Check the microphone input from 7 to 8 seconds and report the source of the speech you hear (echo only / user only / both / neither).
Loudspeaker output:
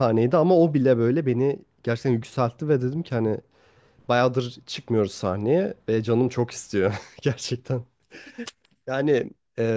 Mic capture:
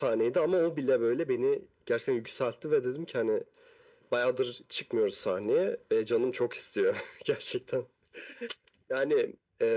echo only